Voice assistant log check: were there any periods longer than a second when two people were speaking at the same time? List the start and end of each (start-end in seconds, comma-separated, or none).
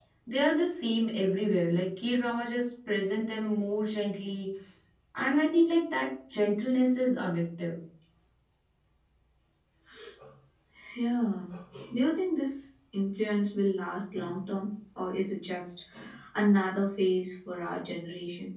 none